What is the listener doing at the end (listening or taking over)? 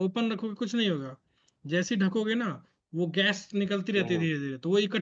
listening